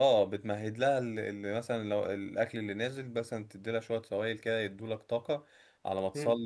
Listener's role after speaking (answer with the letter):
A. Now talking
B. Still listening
B